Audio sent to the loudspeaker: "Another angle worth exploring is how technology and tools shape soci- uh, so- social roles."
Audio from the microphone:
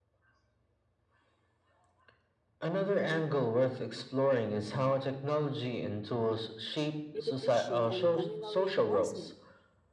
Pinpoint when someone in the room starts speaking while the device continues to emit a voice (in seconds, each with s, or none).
7.1 s